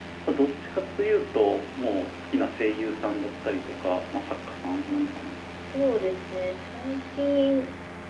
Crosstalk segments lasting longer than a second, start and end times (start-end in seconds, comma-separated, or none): none